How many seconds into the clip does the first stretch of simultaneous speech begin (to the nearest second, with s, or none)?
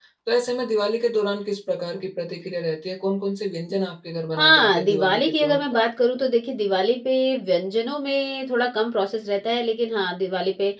4 s